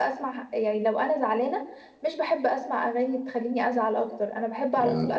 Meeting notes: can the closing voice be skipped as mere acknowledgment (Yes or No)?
Yes